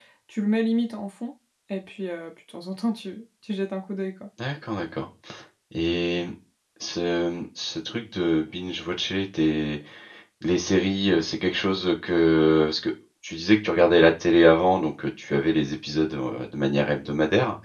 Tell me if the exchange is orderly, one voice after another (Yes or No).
Yes